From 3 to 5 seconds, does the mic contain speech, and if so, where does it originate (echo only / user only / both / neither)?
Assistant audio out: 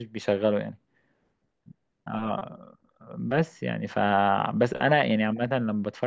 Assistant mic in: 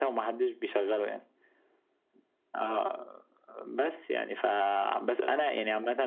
echo only